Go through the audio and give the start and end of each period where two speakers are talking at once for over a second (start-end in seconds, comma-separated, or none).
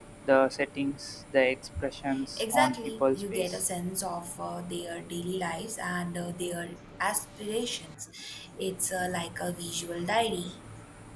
2.4-3.6